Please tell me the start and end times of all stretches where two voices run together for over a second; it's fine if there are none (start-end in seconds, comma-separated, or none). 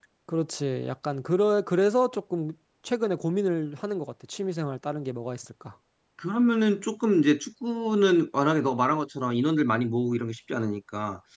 none